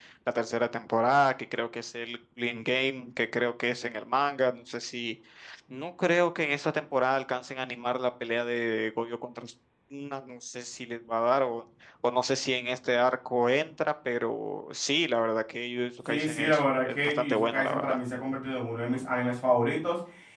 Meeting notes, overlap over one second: present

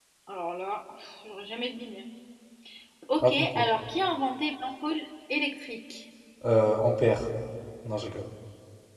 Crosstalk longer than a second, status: none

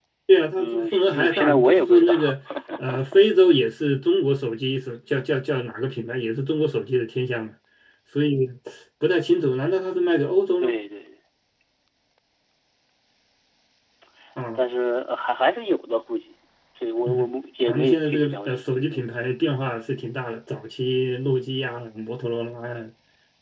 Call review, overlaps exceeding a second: present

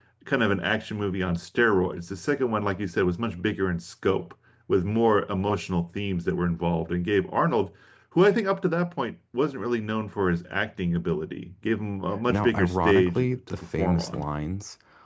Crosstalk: present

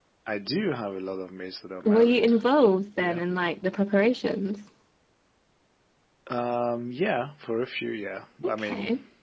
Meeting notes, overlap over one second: none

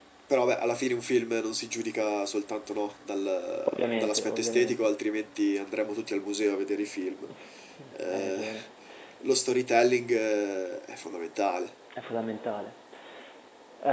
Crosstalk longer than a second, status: present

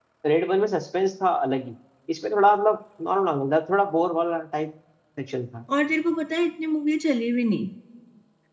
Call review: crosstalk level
none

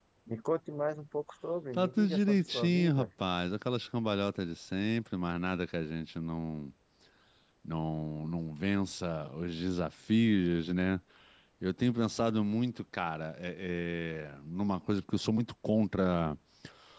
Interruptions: present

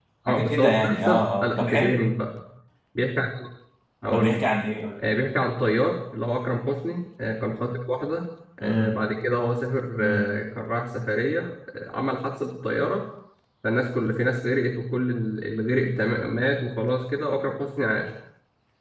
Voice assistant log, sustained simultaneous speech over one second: present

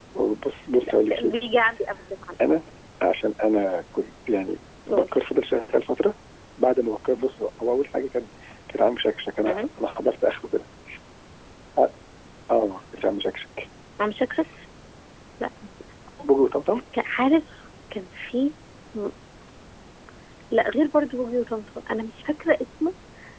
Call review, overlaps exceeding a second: none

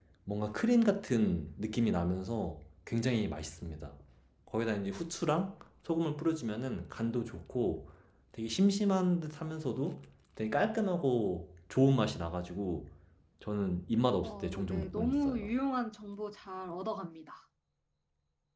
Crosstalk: present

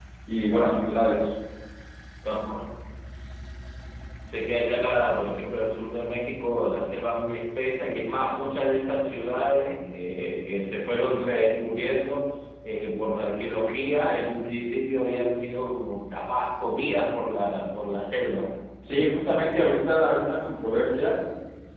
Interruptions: none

